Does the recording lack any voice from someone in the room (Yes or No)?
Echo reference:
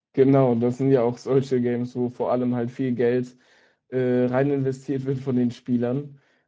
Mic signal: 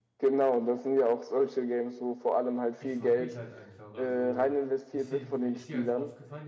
No